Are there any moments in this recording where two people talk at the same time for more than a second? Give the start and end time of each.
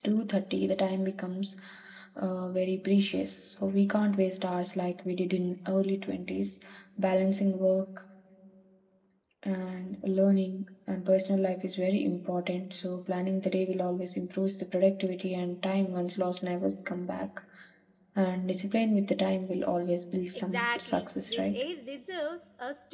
20.3-21.6

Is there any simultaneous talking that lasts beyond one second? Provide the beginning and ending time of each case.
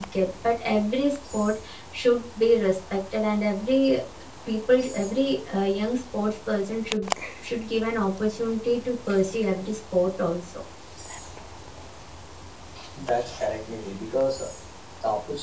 none

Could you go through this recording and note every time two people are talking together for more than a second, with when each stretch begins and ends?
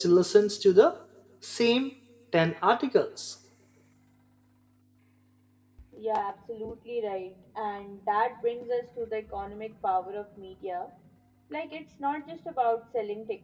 none

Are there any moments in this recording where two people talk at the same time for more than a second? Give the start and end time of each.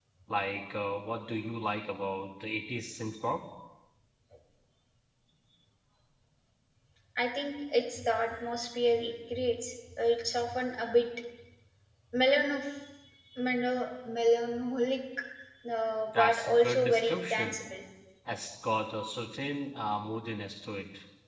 16.1-17.7

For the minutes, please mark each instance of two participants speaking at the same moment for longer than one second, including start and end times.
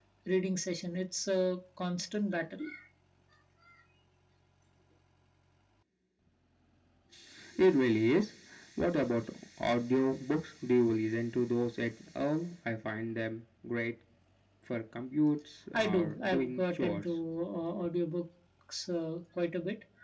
15.7-17.1

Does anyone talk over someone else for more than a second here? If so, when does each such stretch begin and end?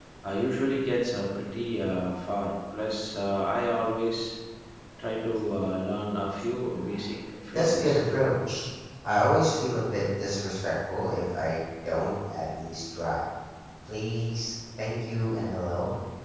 none

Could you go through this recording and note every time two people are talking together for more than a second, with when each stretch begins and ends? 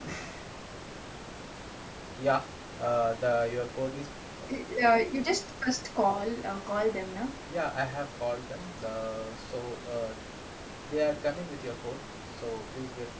none

